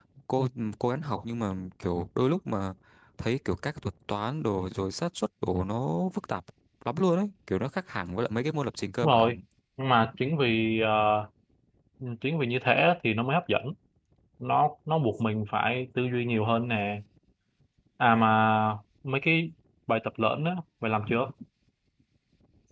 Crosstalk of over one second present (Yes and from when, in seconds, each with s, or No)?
No